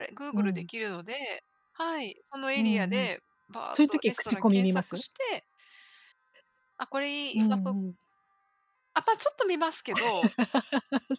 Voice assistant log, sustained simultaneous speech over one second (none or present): present